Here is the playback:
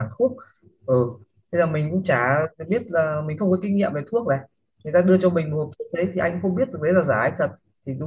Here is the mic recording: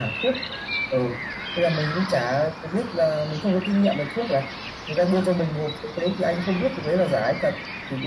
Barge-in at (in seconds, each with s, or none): none